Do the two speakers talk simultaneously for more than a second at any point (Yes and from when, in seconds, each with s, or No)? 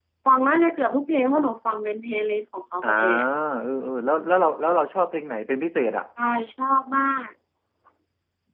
No